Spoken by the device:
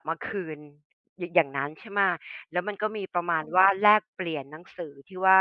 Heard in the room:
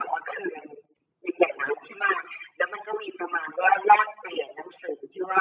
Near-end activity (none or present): none